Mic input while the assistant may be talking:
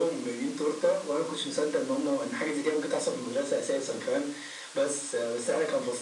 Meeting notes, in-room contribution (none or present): none